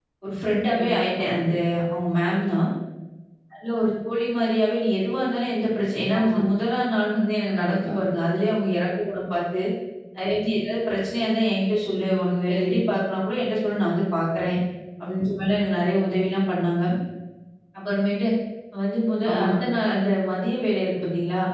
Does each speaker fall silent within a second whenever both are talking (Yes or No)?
Yes